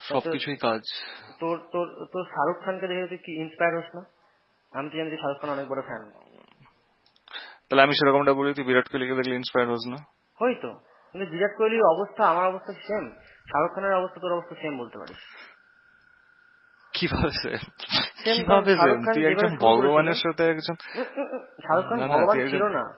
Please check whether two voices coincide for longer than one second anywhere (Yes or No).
Yes